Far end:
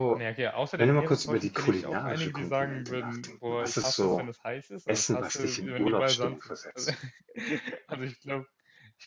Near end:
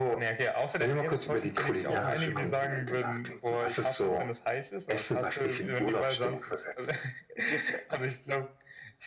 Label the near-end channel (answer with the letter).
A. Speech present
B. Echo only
A